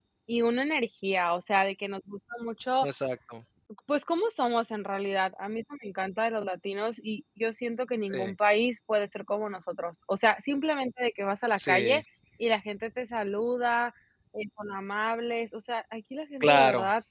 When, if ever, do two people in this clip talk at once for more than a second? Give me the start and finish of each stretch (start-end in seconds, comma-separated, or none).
none